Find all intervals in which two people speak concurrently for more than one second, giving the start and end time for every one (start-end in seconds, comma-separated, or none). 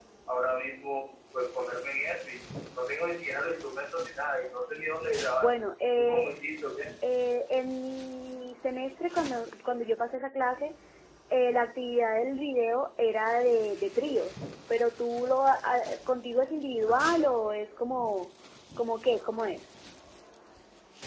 none